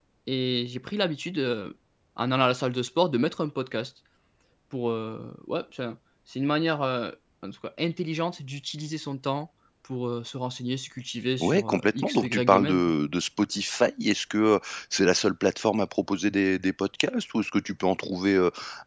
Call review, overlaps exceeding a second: present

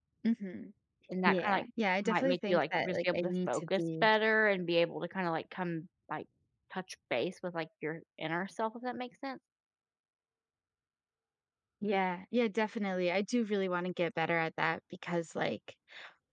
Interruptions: present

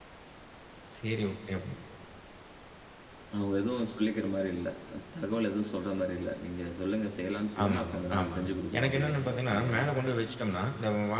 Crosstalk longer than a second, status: present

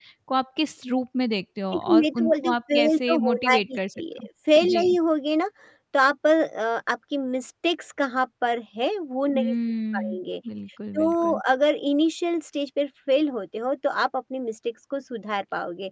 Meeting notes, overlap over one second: present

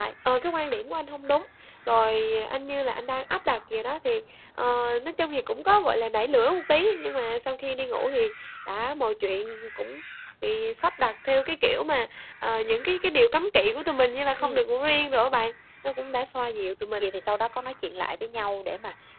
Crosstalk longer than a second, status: none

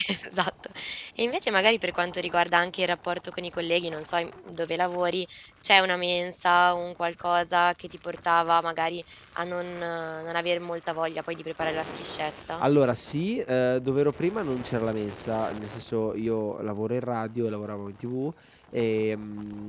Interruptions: none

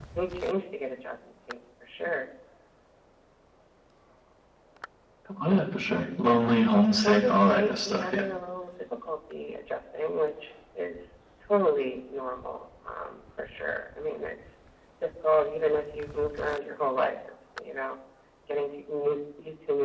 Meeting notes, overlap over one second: present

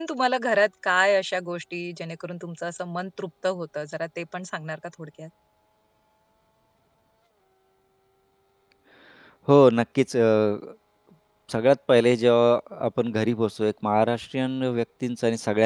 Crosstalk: none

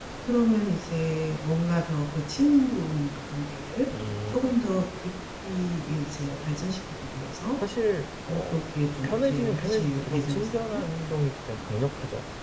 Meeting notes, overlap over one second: present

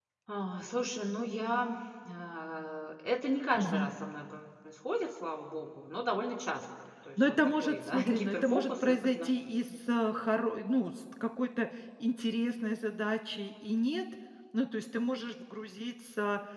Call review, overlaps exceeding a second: present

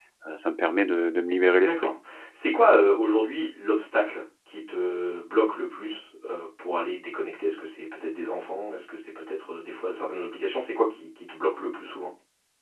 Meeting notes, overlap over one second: none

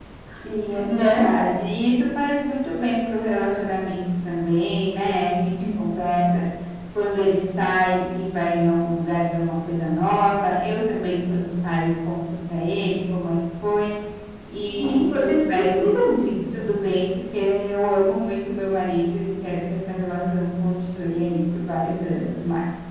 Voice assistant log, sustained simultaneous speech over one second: present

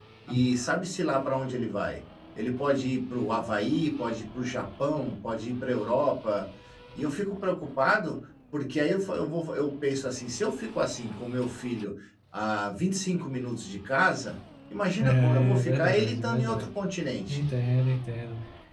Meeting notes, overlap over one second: present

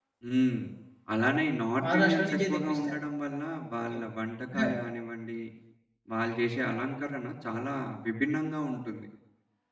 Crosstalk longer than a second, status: present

